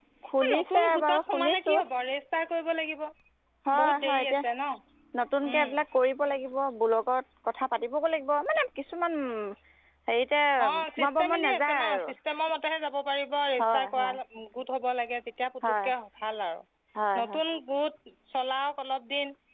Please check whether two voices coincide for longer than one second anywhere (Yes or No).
Yes